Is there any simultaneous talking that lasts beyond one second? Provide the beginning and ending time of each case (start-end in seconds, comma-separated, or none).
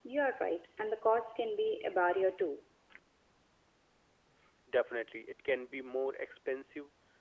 none